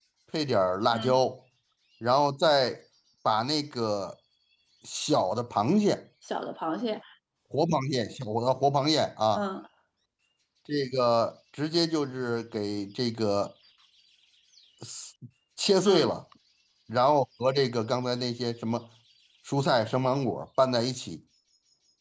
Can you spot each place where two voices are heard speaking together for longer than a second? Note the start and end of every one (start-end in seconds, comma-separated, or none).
none